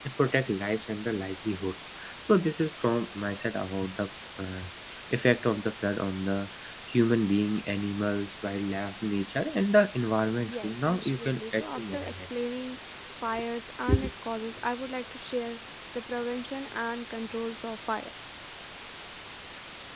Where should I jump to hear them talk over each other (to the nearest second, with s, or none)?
10 s